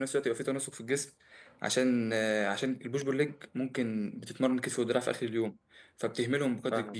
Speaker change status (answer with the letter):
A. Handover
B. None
B